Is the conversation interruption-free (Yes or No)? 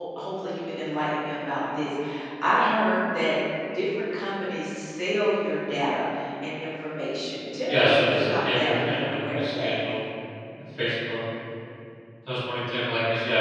No